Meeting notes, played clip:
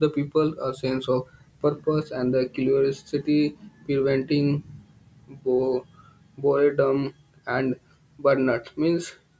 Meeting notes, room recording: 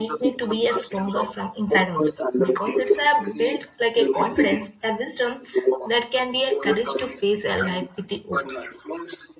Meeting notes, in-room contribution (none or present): present